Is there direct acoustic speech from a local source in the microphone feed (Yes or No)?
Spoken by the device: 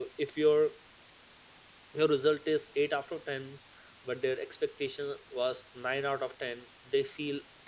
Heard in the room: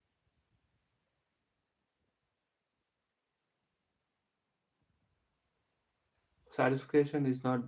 Yes